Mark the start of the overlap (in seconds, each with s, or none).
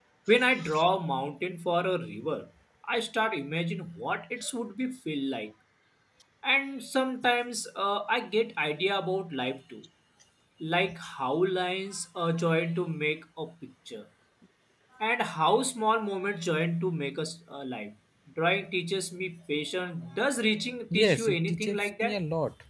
20.9 s